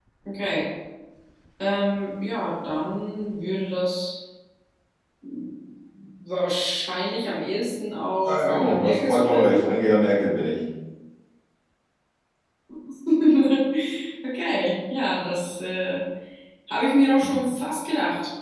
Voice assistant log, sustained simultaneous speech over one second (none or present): present